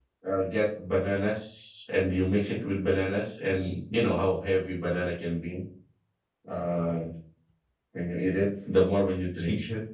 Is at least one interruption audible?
No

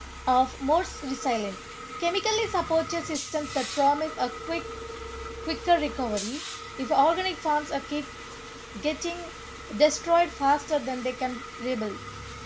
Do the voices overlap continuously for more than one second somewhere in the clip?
No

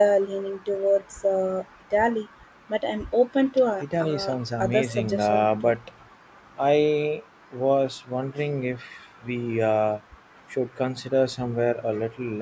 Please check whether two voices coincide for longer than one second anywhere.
Yes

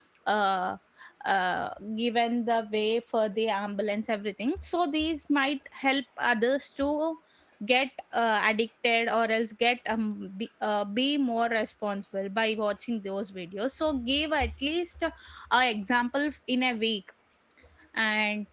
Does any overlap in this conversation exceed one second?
No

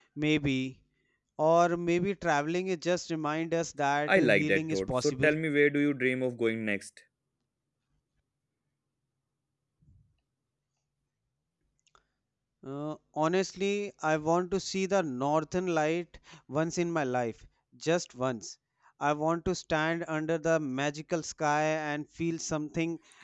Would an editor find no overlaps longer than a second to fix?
No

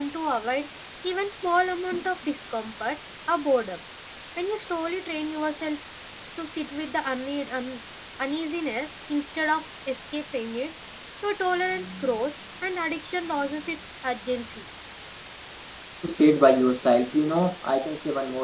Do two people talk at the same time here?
No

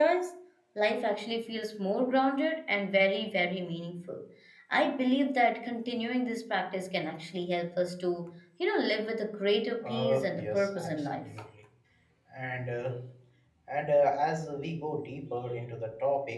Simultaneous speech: Yes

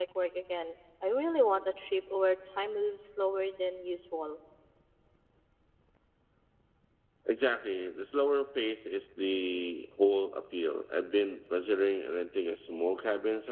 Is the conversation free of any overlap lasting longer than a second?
Yes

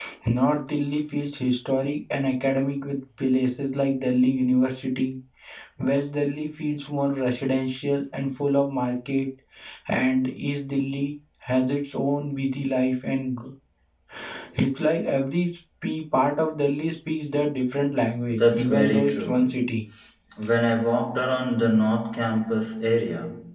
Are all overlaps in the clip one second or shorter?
No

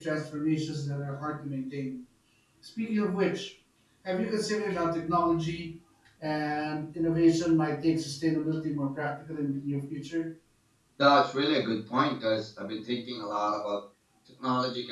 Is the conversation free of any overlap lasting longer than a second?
Yes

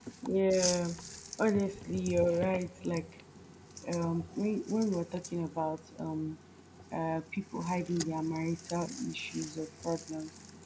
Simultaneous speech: No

